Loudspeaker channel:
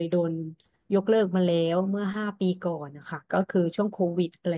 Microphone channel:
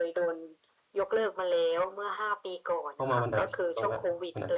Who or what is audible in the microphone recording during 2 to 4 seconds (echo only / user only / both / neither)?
both